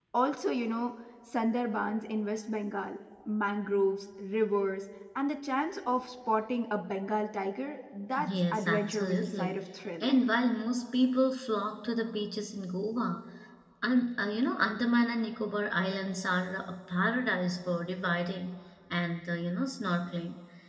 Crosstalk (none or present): present